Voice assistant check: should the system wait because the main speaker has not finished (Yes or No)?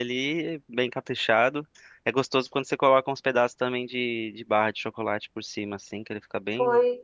No